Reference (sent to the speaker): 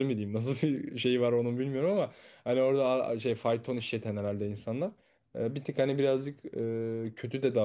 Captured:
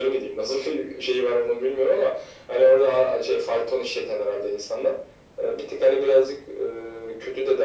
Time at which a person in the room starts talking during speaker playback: none

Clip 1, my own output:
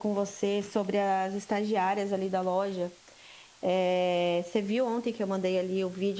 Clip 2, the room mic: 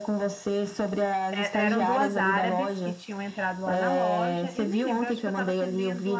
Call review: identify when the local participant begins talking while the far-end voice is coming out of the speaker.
1.3 s

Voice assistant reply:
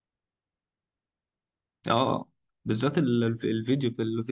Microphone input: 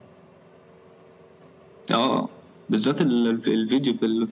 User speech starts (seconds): none

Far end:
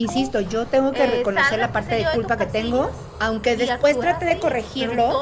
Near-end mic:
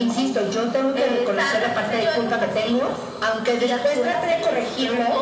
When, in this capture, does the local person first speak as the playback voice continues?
none

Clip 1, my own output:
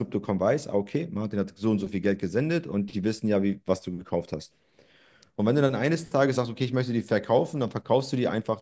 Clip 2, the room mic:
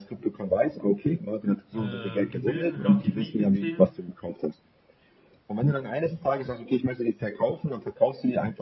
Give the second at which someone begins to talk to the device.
1.7 s

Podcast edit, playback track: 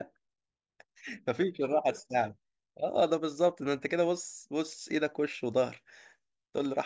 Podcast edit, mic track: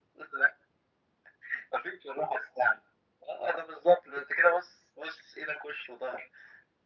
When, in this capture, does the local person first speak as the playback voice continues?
none

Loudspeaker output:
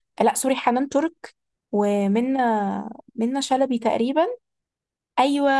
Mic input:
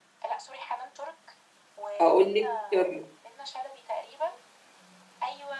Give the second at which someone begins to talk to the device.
2.0 s

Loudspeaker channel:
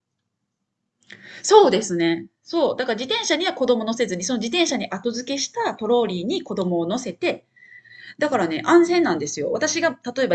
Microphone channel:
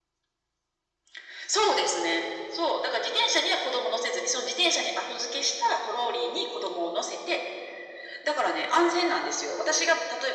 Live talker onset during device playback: none

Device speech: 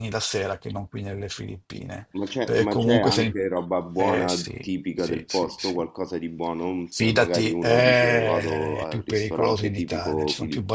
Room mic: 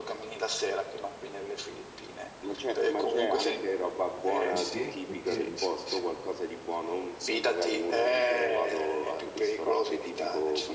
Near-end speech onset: 4.5 s

